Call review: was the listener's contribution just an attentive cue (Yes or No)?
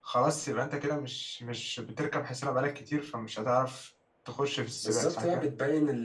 No